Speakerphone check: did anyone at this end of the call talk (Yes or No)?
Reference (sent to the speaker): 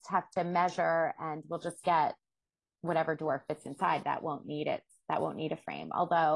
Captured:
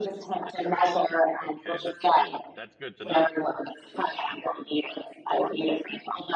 Yes